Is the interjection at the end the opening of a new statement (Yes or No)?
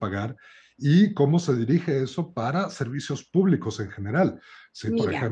No